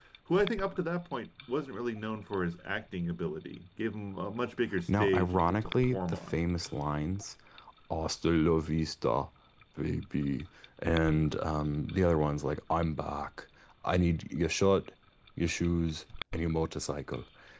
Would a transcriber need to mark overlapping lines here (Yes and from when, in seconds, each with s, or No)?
Yes, from 4.9 s